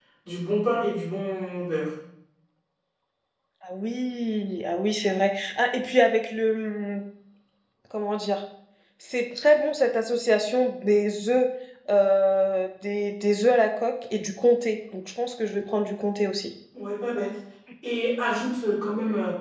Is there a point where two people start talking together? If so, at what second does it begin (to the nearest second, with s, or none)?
none